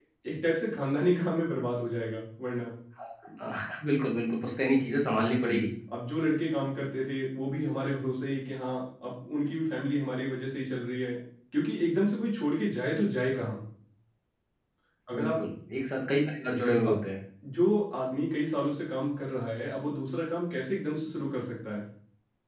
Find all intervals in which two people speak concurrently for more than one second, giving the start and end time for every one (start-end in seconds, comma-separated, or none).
none